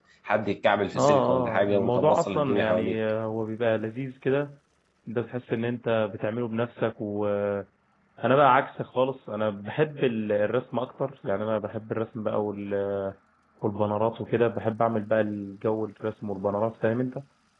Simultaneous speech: Yes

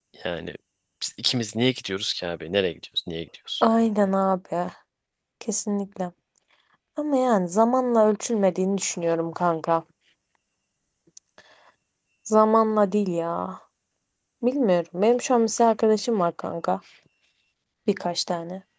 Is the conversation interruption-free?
Yes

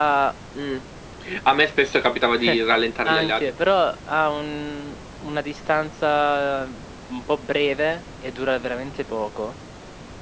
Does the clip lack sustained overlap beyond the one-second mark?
Yes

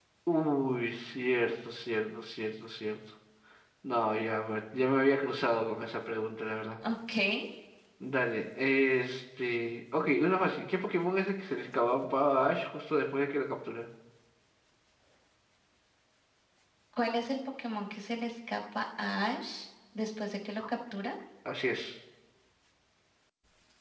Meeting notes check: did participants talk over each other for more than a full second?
No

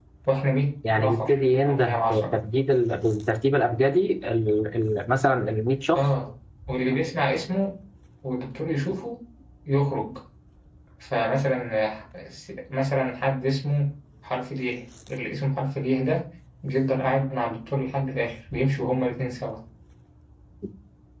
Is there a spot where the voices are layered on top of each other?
Yes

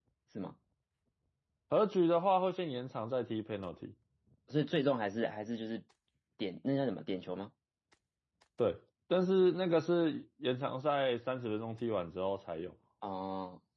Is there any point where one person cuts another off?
No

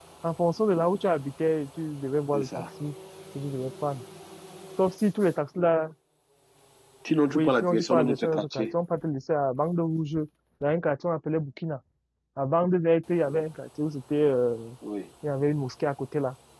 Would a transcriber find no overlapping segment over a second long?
No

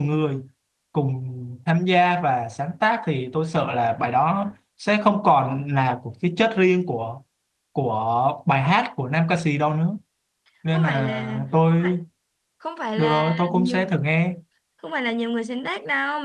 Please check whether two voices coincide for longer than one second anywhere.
Yes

